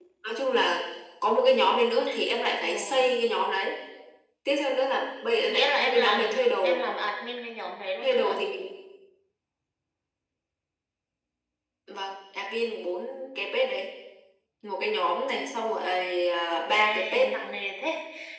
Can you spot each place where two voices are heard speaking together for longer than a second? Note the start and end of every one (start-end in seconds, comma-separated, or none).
5.5-6.8